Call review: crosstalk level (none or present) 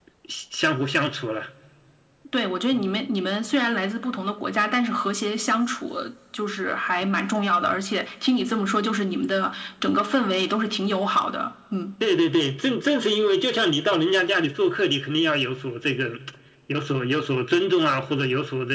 none